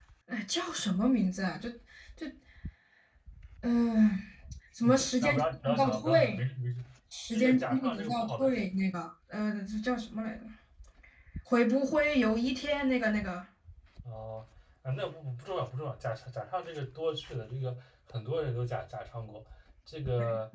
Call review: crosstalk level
present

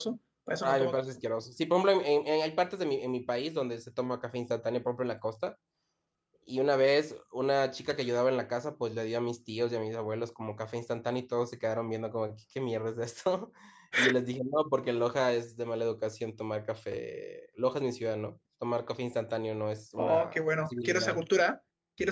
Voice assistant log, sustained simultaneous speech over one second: present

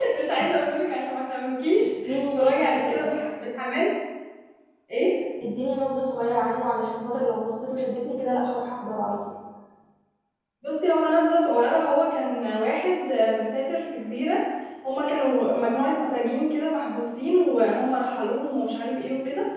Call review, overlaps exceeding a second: present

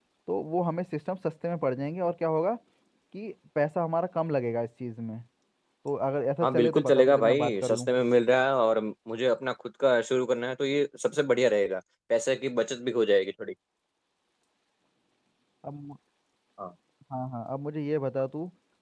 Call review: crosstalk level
present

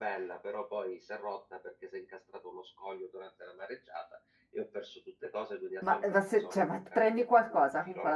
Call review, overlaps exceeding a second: present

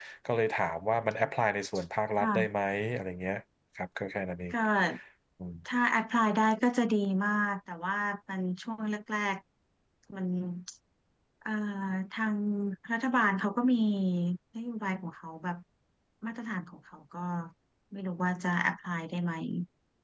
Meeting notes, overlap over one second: none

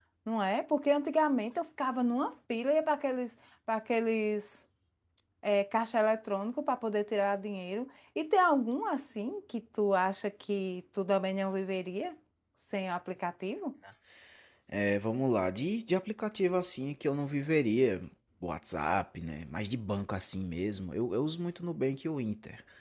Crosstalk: none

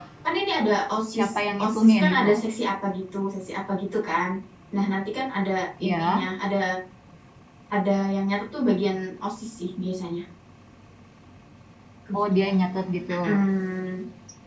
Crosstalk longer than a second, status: present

